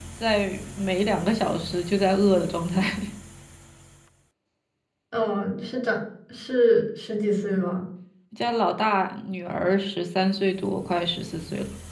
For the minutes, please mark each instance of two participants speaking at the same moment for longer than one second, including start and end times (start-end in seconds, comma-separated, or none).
none